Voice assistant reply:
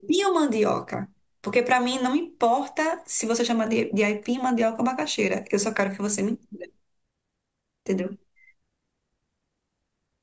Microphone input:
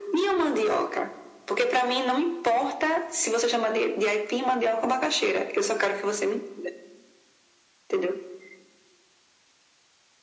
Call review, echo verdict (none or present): present